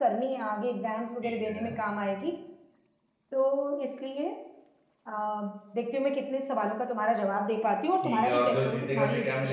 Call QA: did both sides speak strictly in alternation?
No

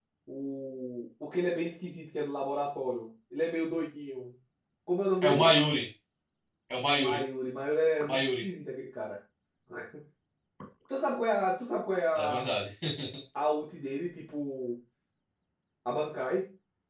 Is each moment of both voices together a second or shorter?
Yes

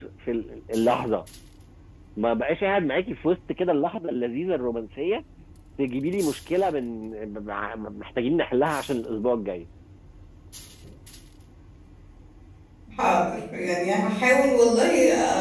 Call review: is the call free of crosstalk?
Yes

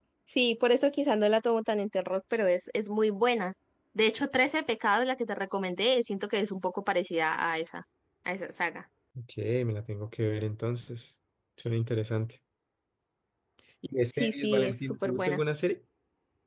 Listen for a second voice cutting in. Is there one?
Yes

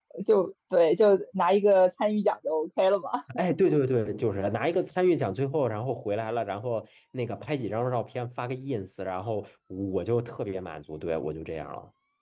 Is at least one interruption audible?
No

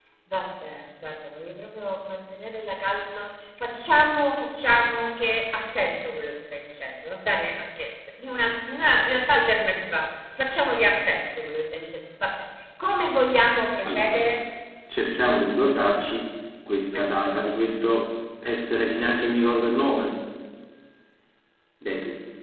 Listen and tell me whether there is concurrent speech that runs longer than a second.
No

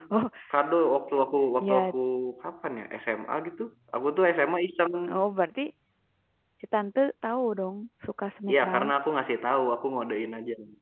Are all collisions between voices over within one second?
Yes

